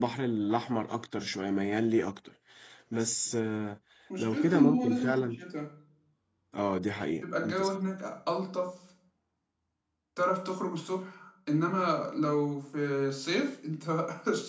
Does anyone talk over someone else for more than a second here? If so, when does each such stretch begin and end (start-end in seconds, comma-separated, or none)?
4.2-5.4